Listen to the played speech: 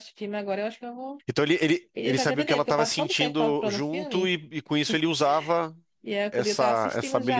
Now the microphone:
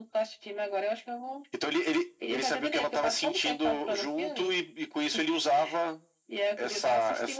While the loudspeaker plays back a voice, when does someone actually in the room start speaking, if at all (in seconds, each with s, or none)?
none